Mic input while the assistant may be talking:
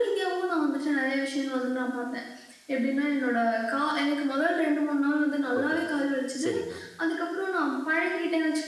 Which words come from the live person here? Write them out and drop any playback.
ஓகே. சரிங்க.

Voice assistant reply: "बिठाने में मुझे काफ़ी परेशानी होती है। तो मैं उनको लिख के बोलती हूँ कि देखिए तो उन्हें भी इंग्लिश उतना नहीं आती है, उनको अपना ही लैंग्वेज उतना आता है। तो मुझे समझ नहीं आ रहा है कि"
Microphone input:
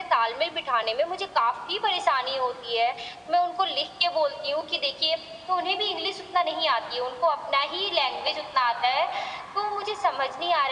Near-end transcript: none

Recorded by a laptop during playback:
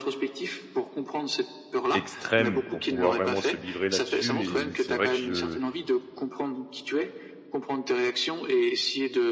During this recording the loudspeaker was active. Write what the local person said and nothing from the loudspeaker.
extrême pour pouvoir vraiment se livrer là-dessus et c'est vrai que je

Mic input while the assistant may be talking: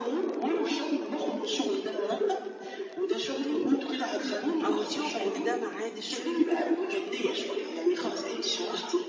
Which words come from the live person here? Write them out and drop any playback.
عوديهم ان ده ميعاد الشغل

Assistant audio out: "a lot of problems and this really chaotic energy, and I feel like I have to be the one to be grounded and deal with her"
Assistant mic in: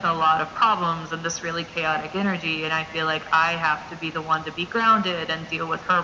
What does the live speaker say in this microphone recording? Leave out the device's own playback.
none

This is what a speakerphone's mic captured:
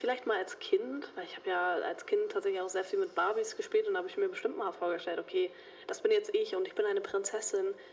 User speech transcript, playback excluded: none

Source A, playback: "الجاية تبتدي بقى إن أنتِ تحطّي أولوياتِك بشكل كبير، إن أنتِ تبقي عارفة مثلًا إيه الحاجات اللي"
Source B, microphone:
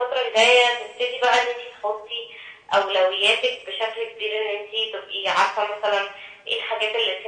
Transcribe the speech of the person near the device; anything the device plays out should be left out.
none

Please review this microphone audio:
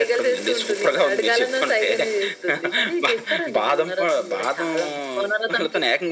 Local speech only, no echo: none

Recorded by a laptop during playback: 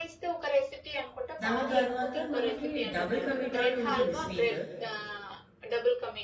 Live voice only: దాని తర్వాత మనకి డబుల్ కా మీఠా అని ఉంటుంది స్వీట్.

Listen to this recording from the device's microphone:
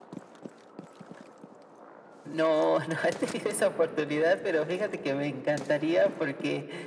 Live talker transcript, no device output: none

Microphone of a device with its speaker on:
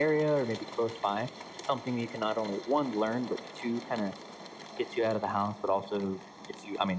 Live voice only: none

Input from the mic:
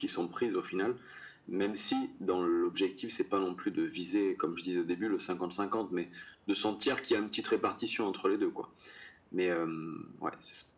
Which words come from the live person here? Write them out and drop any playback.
none

